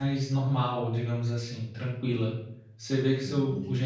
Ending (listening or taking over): listening